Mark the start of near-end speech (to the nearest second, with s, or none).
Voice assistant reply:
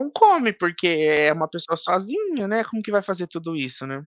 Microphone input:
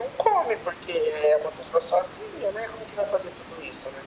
none